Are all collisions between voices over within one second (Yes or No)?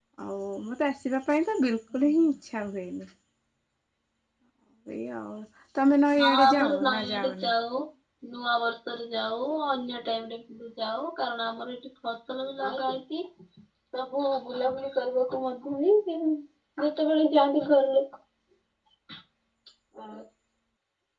No